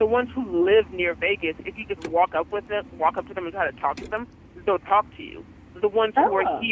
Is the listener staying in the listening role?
Yes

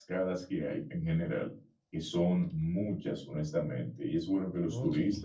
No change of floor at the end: Yes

